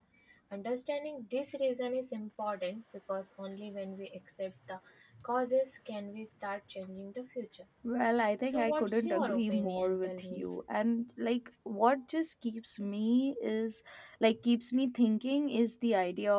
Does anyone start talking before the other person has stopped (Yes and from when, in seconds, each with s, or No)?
Yes, from 8.5 s